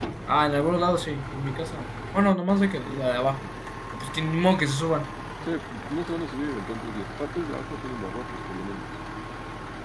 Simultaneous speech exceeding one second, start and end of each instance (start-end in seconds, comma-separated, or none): none